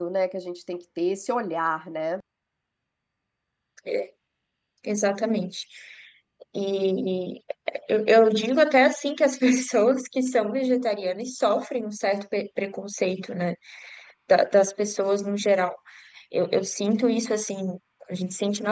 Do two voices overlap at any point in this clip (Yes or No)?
No